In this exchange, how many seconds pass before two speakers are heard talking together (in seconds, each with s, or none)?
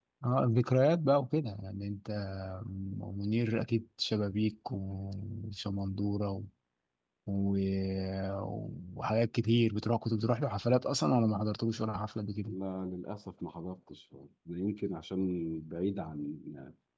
none